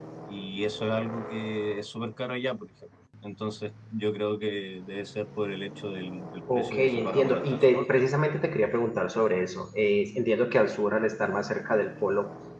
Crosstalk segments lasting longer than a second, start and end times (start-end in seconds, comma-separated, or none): 6.5-7.9